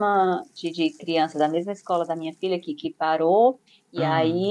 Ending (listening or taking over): listening